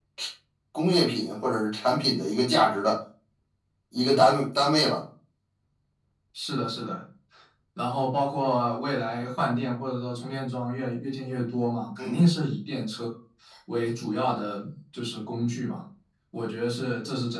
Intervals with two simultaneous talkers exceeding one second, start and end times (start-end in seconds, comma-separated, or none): none